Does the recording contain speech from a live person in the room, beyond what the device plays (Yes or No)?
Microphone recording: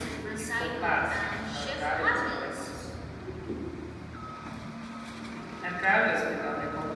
No